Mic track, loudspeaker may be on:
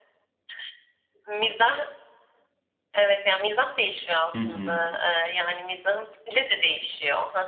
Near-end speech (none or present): present